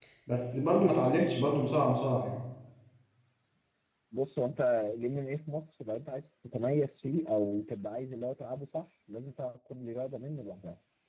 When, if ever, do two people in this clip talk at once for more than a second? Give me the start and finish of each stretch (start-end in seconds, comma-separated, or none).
none